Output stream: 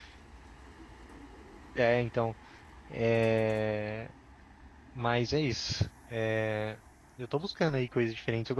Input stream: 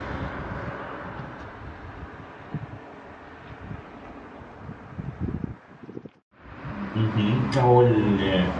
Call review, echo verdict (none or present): none